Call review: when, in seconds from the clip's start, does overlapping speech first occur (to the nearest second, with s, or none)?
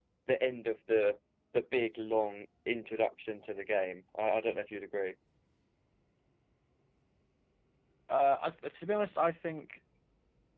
none